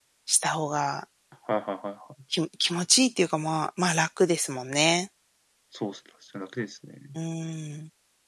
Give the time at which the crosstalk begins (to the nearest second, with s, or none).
none